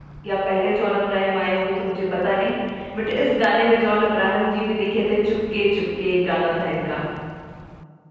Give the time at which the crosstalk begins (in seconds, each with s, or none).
none